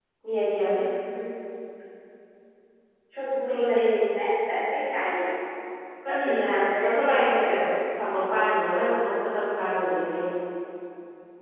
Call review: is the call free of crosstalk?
No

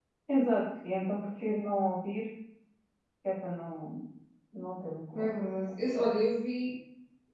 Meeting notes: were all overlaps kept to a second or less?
Yes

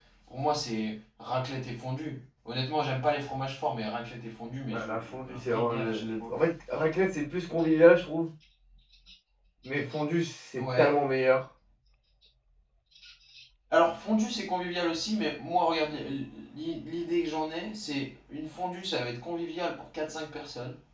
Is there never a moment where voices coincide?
No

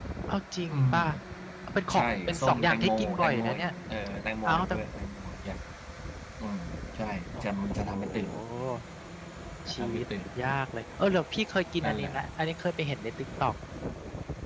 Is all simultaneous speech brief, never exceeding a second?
No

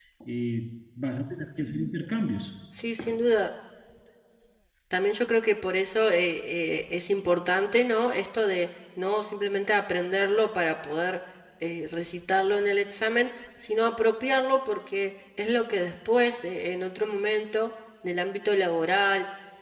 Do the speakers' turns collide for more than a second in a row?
No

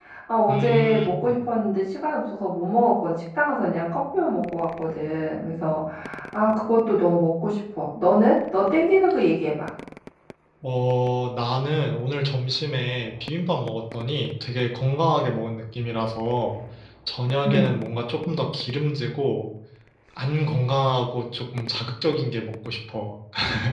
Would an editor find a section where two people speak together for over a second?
No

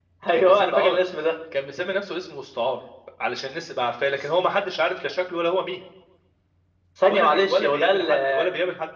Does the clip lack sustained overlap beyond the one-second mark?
No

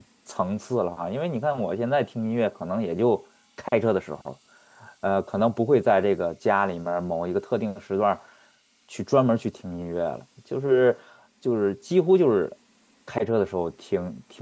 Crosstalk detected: No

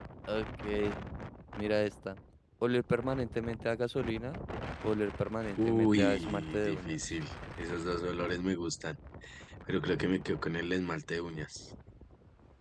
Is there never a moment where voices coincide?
No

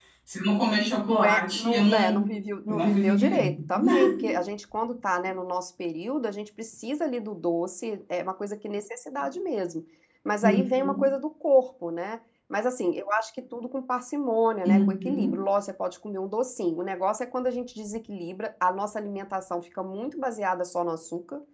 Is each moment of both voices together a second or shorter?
No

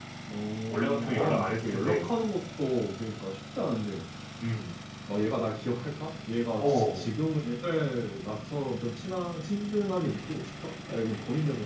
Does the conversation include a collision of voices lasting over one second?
Yes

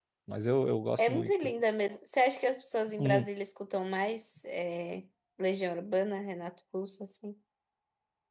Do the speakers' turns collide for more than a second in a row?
No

